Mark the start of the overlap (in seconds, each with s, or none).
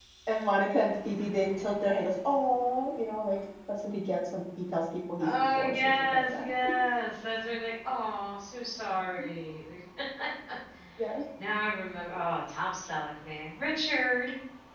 5.2 s